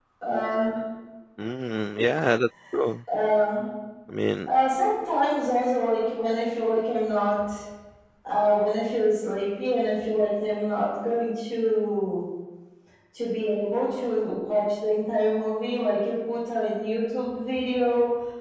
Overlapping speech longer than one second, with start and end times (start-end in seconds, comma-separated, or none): none